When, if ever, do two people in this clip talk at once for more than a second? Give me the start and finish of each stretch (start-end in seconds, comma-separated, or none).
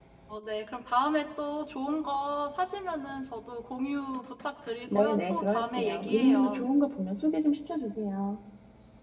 4.9-6.6